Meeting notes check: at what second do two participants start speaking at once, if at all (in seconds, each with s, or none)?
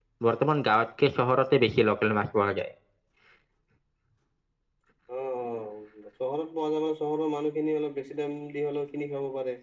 none